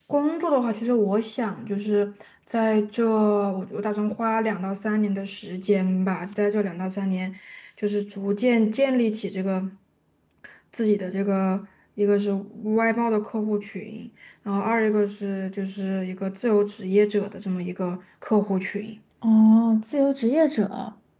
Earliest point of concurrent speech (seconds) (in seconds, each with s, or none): none